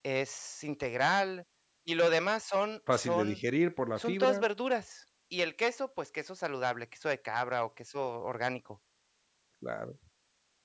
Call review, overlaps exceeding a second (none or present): none